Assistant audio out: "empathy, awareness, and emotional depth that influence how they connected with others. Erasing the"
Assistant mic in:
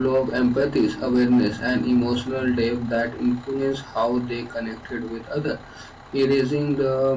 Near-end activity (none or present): none